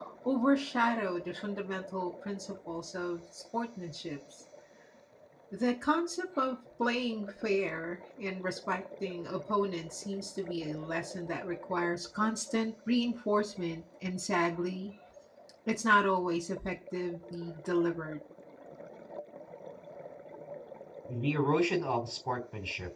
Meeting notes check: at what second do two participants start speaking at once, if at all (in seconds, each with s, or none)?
none